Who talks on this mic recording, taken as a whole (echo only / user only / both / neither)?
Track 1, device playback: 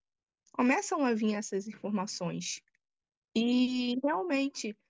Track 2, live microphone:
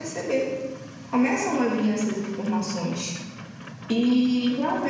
echo only